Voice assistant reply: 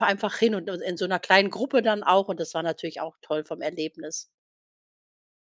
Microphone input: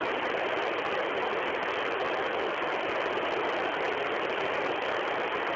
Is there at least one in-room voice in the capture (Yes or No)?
No